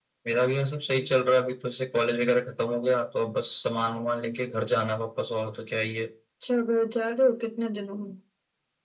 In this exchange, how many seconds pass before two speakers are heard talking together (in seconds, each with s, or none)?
none